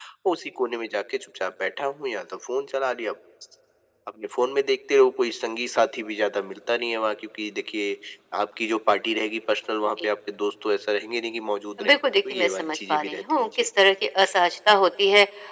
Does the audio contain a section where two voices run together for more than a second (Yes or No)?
Yes